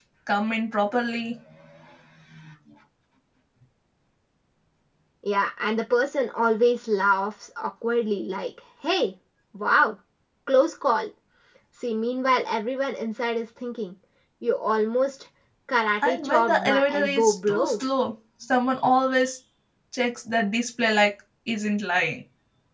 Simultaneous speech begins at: 16 s

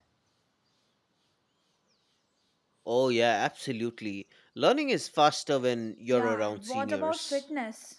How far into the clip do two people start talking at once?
6 s

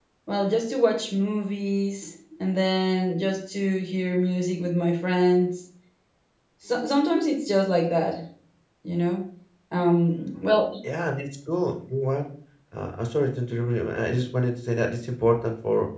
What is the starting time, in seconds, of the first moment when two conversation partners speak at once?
none

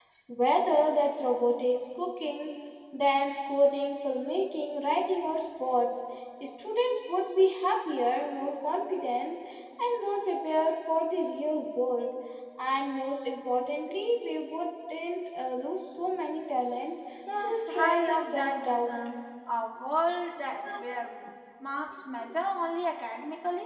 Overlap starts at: 17 s

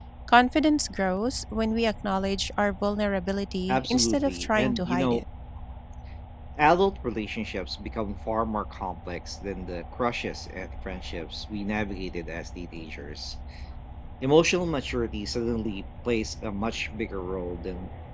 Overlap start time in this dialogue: 4 s

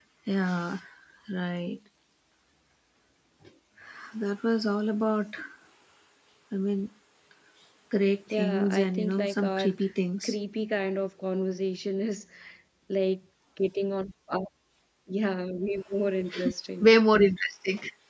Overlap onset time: 8 s

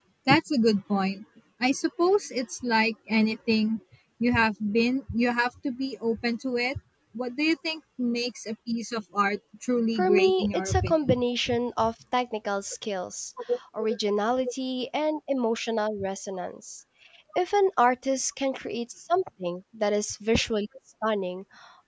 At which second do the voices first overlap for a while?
10 s

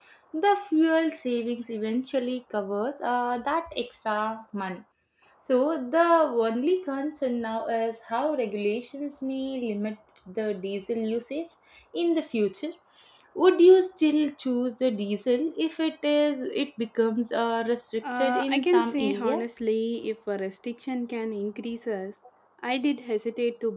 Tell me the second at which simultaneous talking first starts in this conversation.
18 s

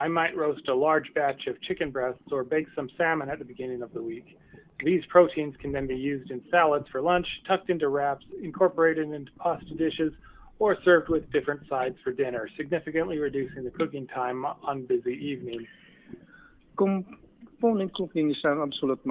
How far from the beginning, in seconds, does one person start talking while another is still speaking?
none

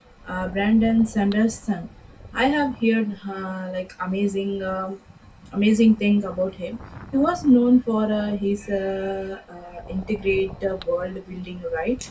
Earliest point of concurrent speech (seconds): none

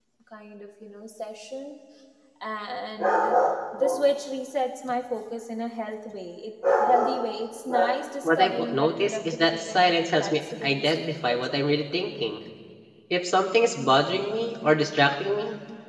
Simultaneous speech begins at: 8 s

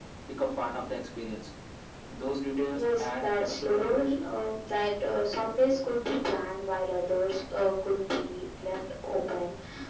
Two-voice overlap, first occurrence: 3 s

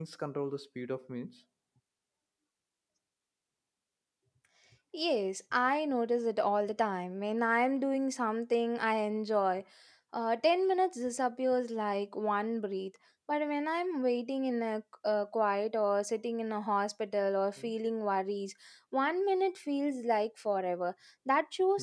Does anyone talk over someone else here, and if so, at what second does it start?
none

